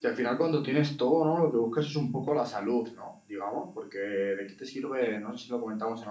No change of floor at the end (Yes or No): Yes